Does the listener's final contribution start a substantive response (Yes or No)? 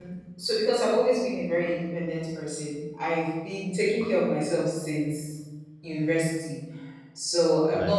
No